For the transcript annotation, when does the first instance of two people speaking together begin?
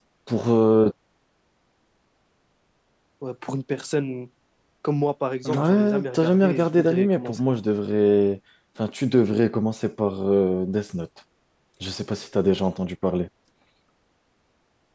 5 s

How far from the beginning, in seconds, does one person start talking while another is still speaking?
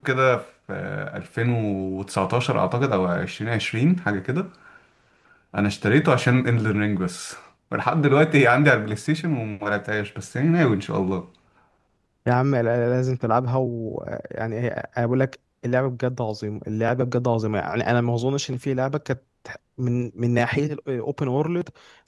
none

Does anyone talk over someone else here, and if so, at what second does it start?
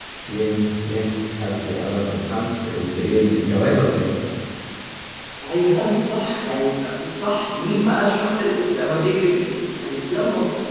none

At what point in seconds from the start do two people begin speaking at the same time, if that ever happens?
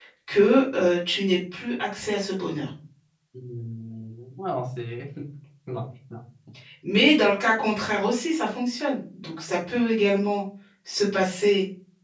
none

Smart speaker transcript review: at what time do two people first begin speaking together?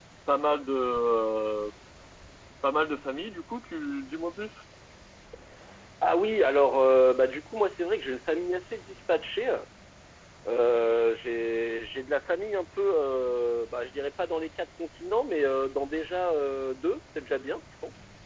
none

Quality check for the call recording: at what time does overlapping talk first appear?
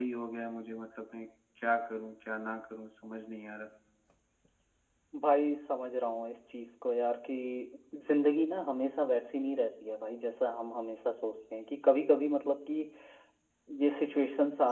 none

